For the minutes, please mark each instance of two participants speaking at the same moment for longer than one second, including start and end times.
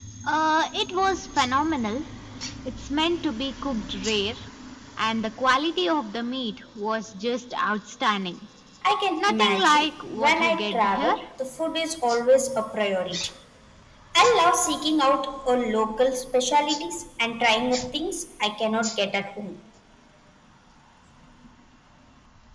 9.2-11.2

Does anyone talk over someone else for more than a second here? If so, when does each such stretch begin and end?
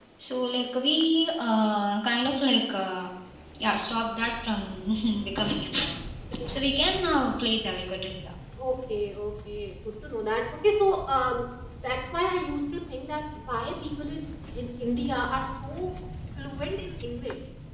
none

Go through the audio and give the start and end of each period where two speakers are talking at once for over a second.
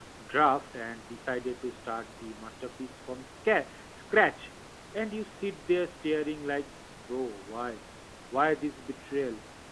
none

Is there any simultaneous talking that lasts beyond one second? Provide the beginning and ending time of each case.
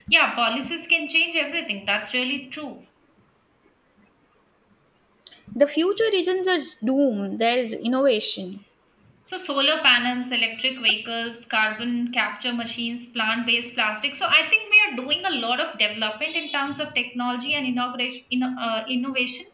none

